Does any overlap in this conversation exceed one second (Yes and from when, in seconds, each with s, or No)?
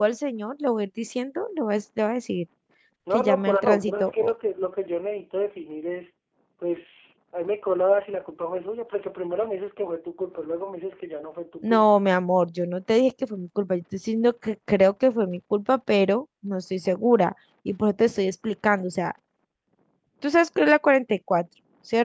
Yes, from 3.1 s